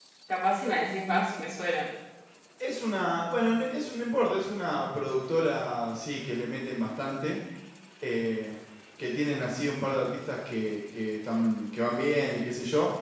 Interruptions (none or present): none